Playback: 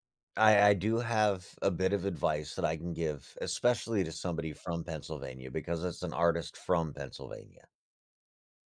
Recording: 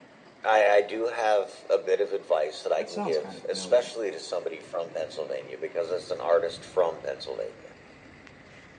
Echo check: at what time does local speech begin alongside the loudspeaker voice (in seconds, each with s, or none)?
2.8 s